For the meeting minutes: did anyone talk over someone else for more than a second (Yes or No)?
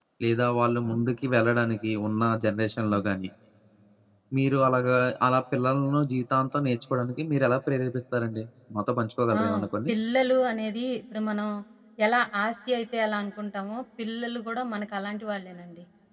No